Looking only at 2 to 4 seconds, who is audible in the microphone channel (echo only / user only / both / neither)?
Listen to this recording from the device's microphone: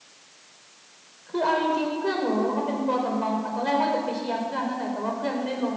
echo only